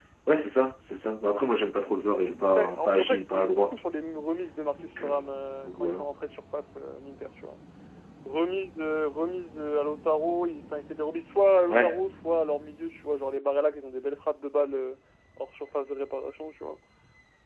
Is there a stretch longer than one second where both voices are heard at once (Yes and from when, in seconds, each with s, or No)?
Yes, from 2.4 s